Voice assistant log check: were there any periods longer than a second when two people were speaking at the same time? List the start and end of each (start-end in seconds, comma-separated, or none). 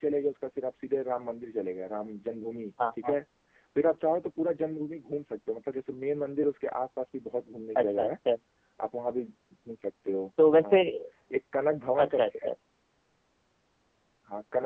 none